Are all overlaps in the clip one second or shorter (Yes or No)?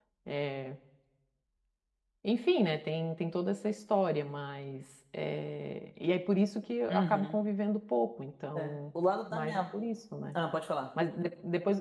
Yes